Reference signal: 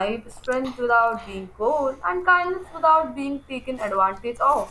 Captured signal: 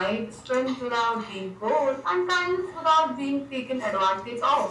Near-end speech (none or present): none